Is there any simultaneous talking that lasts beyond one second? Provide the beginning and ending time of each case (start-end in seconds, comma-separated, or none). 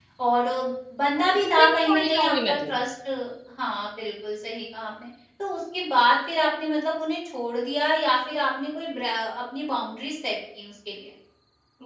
1.2-2.8